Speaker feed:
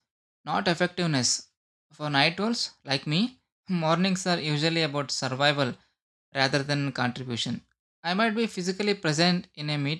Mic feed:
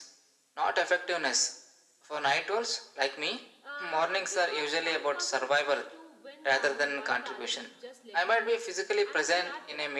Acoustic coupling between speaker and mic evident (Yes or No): Yes